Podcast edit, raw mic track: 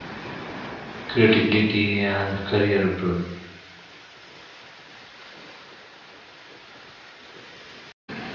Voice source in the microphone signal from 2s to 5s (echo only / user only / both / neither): user only